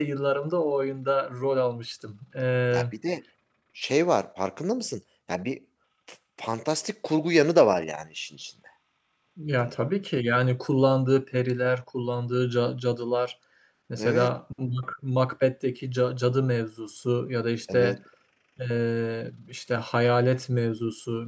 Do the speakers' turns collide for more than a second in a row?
No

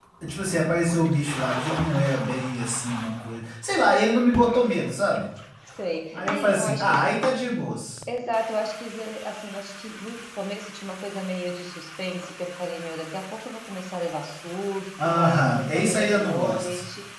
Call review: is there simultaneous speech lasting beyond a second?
Yes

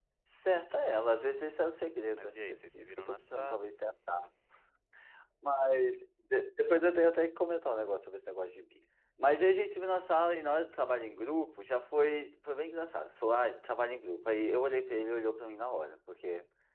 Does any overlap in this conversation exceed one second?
Yes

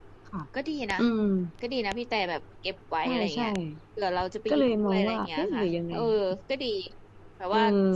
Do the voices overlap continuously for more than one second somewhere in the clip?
Yes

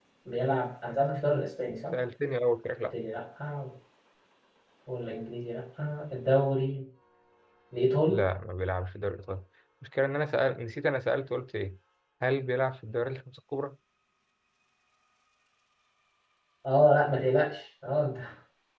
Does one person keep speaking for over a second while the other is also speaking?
No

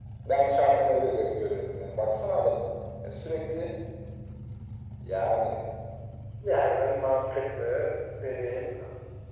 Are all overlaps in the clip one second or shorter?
Yes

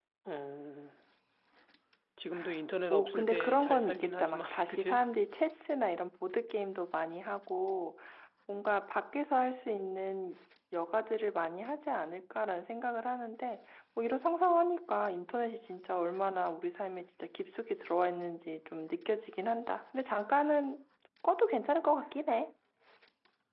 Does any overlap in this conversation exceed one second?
Yes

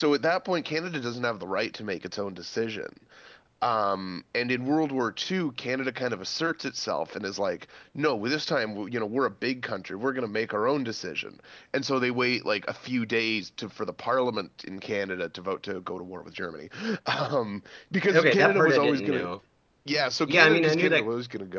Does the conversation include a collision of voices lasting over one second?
Yes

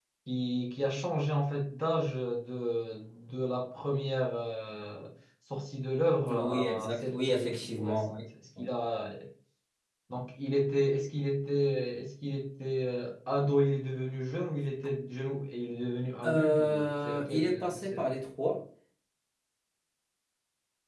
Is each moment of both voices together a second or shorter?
No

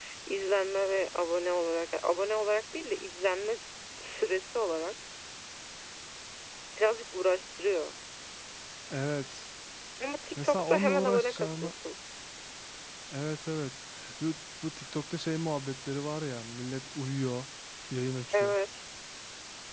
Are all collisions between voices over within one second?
No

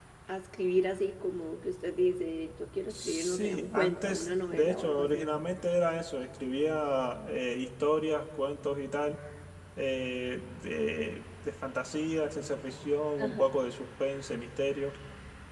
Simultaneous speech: Yes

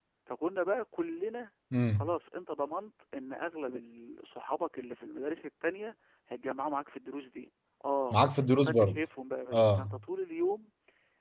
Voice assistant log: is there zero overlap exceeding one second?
Yes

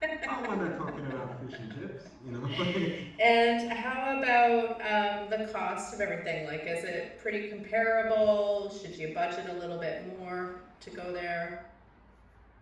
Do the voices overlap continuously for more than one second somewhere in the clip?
No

